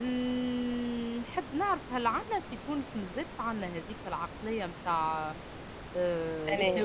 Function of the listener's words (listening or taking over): listening